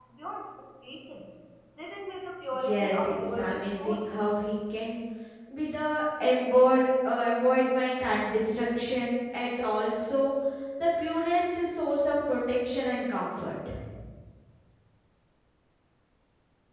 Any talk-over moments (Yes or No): Yes